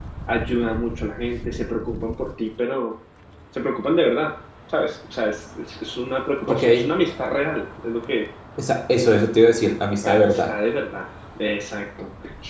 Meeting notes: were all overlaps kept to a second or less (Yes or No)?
Yes